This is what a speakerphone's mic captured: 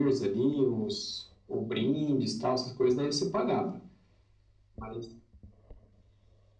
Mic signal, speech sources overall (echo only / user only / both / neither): echo only